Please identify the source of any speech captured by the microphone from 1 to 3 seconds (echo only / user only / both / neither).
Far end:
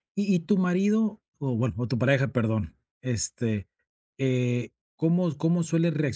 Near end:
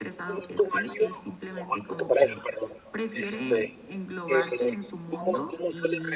both